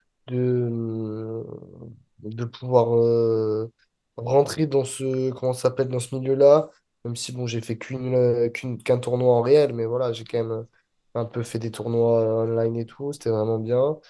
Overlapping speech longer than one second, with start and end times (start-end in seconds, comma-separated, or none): none